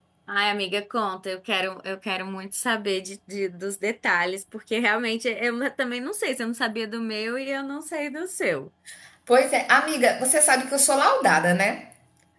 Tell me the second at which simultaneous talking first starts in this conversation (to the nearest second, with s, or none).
none